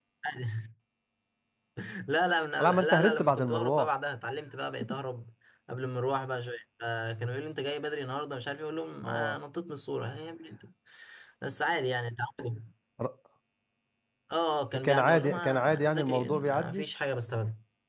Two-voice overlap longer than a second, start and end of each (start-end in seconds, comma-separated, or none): 2.6-3.9, 14.8-16.8